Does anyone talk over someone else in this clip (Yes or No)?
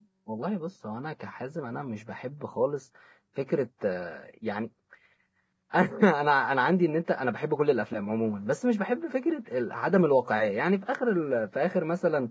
No